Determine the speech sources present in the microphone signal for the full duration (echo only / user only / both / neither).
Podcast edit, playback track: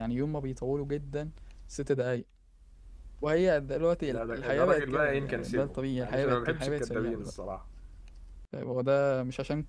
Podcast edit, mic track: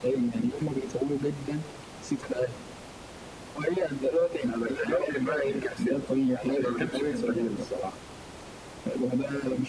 echo only